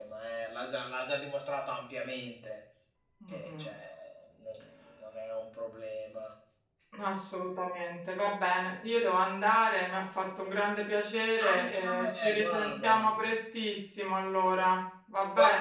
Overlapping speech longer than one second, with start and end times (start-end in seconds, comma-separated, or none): 11.5-13.1